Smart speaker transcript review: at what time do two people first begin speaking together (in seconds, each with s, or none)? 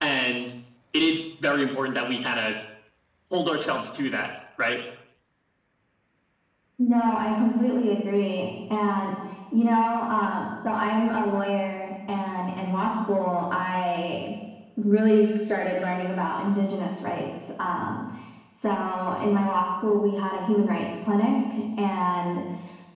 none